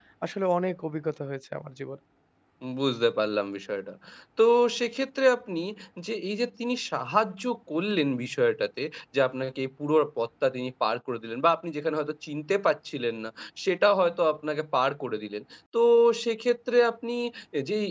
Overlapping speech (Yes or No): No